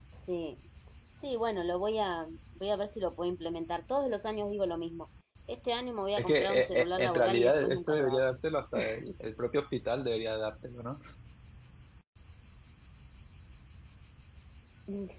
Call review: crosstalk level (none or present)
present